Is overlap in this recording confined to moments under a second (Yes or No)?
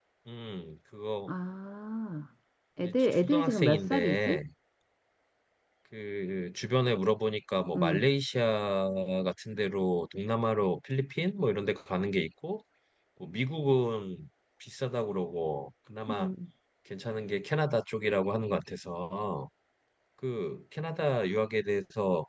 No